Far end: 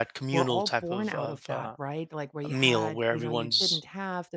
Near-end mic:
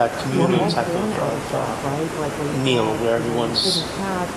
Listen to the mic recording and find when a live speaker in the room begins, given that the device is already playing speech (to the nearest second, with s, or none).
0 s